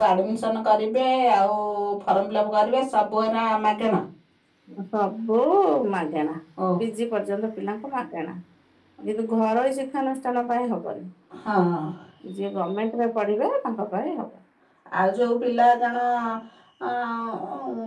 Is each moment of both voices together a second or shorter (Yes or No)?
Yes